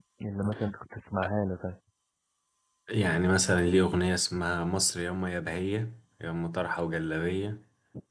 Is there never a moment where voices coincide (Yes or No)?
Yes